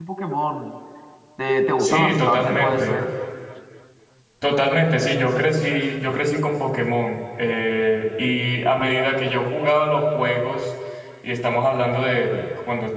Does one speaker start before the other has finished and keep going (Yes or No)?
Yes